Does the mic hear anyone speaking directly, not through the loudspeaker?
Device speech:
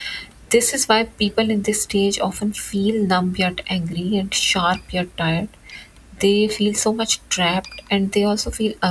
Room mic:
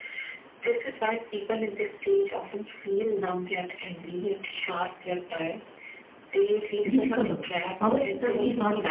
Yes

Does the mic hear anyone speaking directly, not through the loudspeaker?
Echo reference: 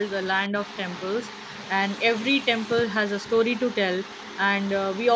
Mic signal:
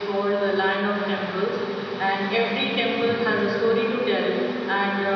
No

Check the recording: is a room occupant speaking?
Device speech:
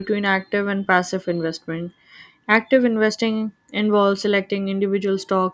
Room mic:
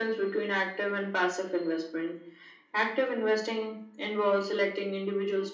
No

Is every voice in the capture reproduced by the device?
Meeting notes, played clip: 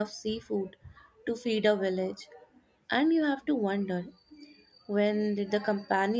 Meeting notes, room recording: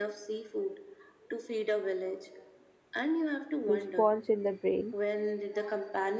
No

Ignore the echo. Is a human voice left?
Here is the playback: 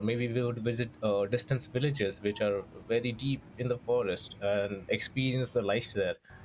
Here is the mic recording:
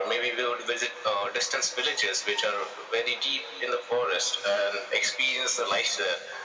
No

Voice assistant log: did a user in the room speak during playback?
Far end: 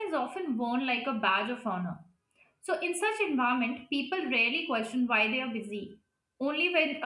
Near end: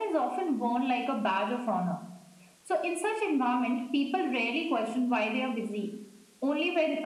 No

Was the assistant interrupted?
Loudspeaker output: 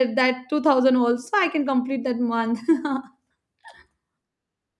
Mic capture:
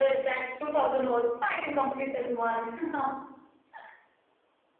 No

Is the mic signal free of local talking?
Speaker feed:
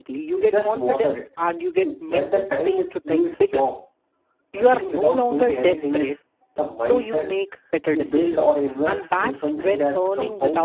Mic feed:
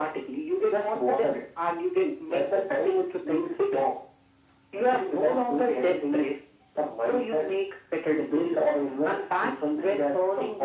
Yes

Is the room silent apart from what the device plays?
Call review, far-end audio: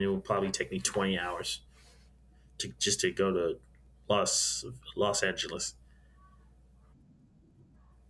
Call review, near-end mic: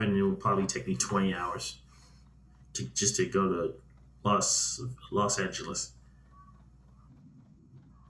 Yes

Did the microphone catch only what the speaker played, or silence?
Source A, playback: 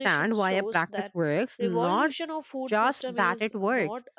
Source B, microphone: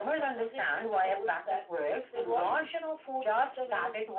Yes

